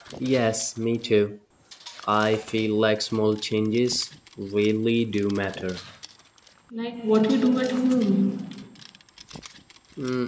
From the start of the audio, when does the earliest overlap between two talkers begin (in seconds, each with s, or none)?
none